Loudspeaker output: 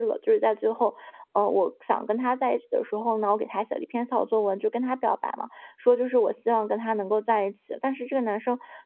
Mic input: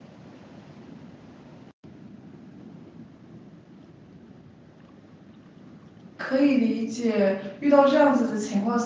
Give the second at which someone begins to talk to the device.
6.2 s

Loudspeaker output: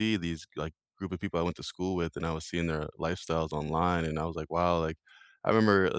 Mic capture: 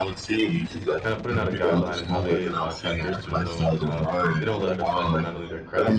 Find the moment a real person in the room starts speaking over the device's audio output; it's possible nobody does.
1.0 s

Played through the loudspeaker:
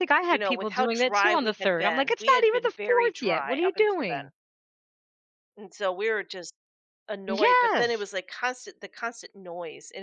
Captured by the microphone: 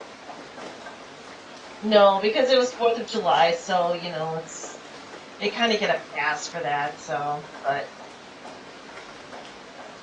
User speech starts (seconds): 1.8 s

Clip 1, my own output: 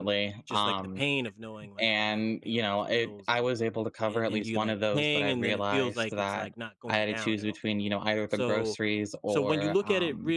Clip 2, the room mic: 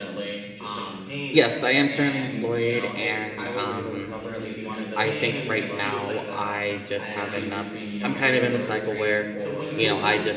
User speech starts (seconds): 1.3 s

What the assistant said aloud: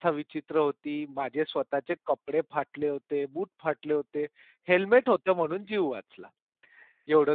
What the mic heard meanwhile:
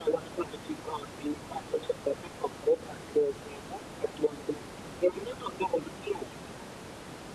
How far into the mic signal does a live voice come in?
none

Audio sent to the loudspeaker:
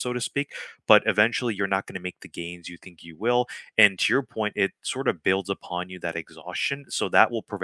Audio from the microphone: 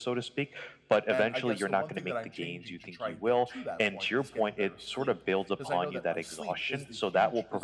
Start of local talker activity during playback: 1.1 s

